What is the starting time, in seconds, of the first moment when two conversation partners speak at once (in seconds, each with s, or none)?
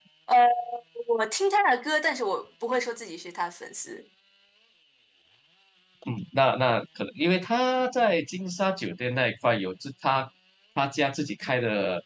none